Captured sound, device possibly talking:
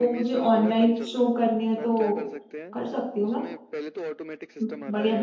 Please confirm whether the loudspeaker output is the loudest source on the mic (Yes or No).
No